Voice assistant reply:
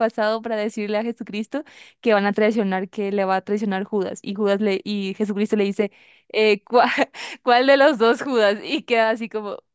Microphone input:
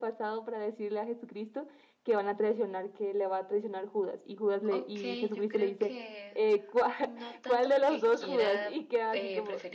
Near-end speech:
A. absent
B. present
B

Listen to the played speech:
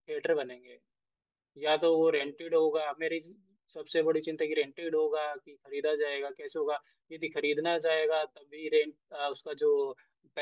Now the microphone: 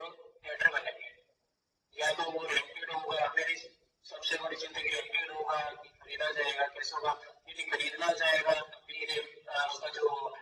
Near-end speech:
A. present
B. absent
B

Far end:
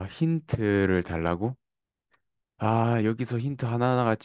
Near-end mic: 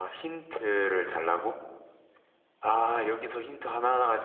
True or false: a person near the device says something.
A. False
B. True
A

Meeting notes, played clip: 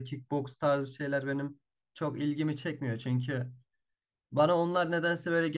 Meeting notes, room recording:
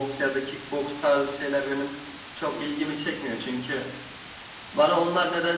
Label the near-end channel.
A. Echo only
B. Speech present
A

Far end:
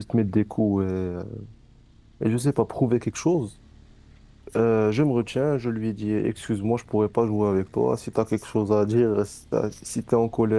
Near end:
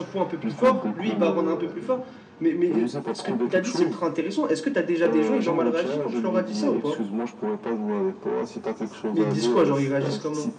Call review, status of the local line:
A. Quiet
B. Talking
B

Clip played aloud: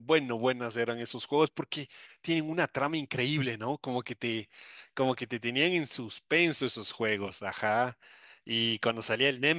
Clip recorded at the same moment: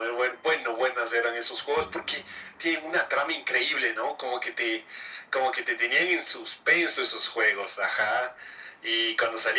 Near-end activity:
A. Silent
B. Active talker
B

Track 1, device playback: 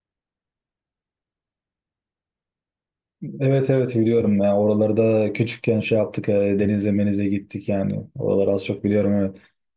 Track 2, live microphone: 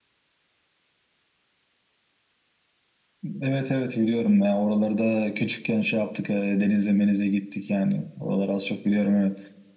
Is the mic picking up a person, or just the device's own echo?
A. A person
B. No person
B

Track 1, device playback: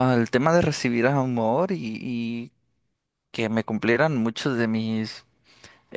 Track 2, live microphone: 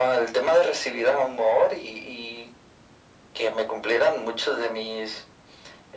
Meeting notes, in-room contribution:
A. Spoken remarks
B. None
B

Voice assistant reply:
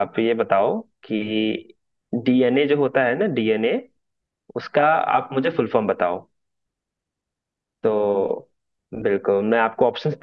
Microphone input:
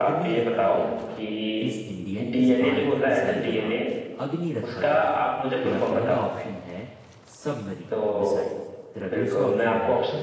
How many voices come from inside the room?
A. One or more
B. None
A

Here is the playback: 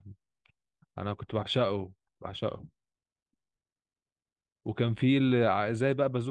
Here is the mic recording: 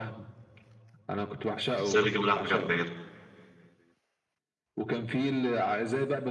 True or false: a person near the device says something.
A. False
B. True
B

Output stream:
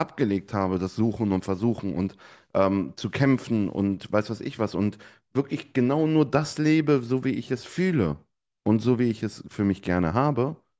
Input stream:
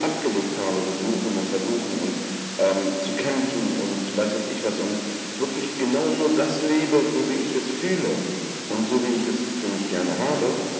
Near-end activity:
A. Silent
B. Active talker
A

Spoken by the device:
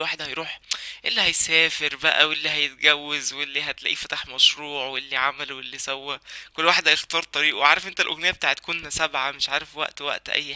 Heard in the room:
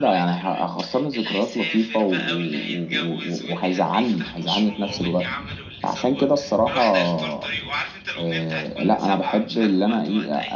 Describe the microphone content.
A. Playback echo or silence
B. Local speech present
B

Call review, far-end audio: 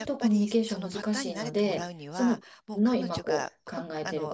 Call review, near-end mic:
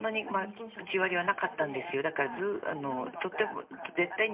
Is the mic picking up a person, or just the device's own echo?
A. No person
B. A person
B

